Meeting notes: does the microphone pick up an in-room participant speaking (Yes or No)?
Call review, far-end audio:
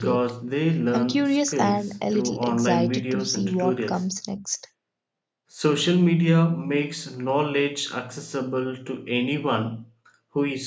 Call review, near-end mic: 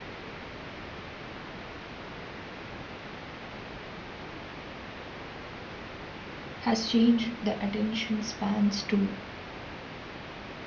Yes